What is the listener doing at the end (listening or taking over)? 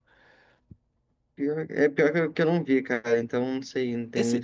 taking over